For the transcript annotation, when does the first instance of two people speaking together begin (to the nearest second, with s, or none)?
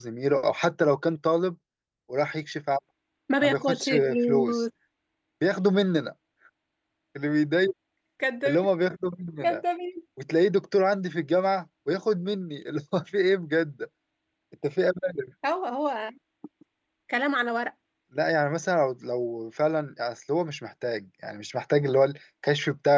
3 s